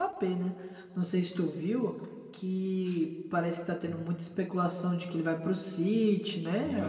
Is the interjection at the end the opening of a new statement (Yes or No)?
Yes